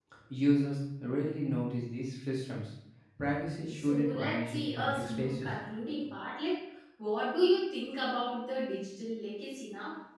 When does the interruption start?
4 s

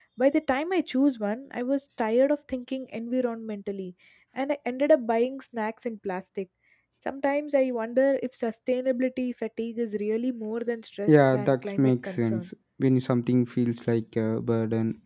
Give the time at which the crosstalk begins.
11 s

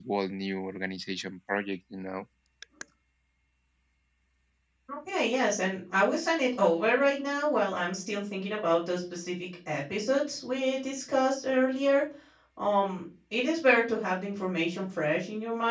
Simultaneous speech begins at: none

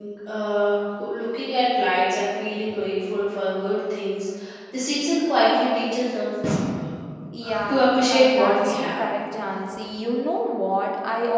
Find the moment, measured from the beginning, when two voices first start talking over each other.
8 s

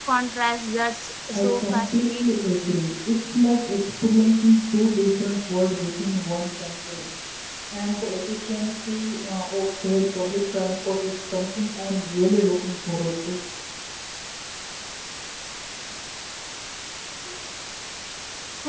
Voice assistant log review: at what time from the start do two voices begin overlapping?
1 s

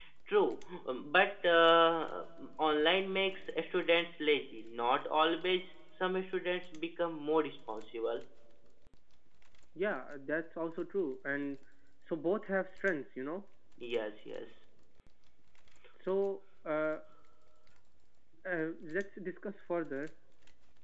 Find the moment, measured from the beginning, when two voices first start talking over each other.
none

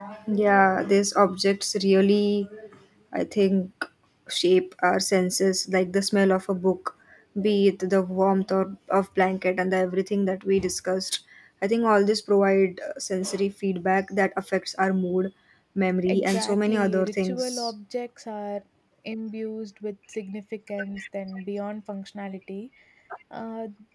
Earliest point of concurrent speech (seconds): 16 s

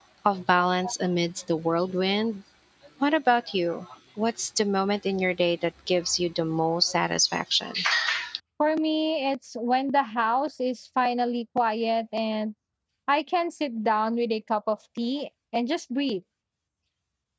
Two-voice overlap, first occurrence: none

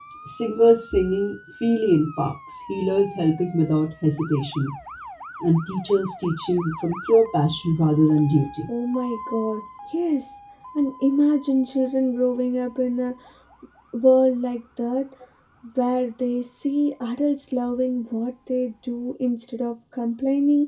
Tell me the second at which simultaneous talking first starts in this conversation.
none

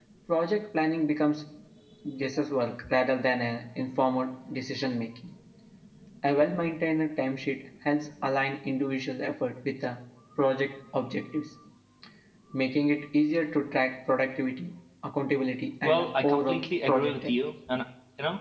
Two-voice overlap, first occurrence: 16 s

